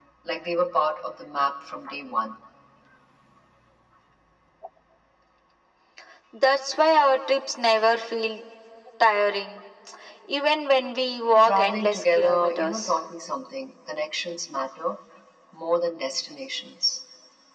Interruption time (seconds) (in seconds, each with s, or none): 11.4 s